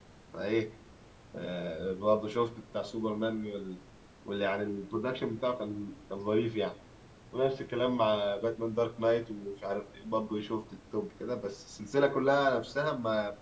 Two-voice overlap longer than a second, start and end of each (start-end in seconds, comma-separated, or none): none